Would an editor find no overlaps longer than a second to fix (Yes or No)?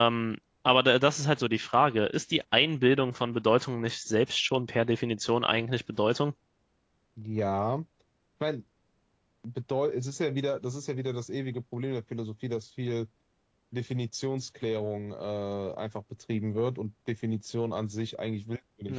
Yes